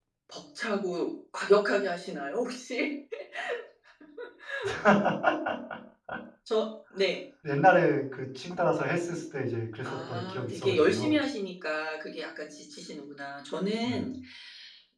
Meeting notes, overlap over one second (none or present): present